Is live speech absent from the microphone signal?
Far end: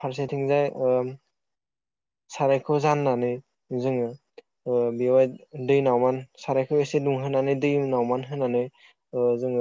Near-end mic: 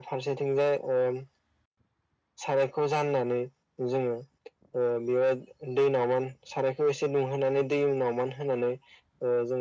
Yes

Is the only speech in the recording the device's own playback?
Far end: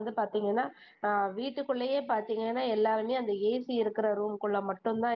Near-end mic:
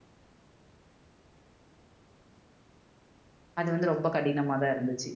No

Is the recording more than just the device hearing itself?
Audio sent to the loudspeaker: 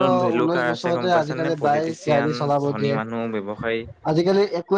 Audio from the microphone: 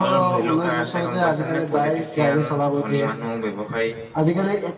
No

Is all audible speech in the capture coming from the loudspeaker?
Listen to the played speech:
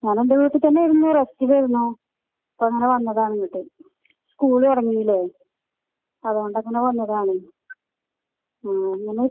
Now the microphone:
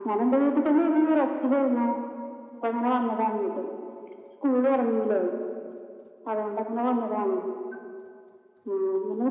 Yes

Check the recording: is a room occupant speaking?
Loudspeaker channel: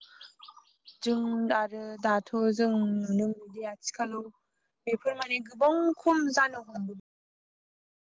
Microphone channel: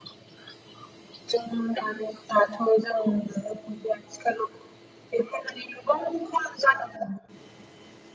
No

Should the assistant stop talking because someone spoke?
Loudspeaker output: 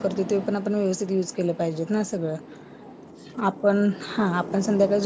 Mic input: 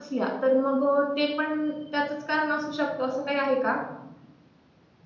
Yes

